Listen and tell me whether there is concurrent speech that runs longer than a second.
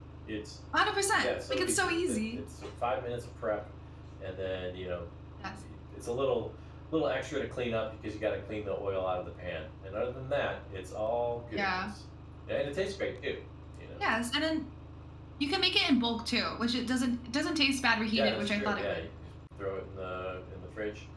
Yes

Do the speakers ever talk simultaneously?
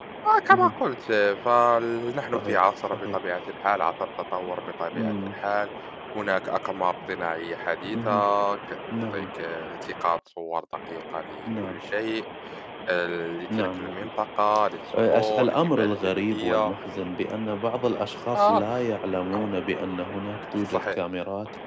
Yes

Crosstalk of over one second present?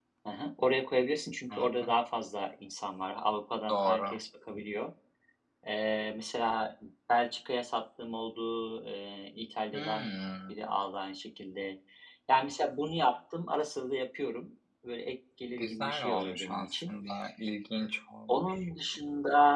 Yes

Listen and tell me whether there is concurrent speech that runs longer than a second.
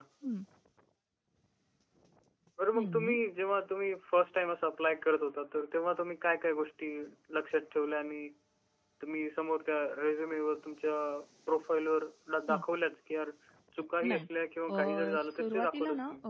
Yes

